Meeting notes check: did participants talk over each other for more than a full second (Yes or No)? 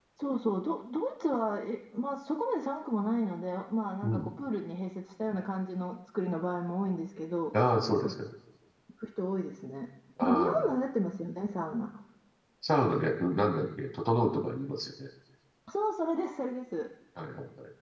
No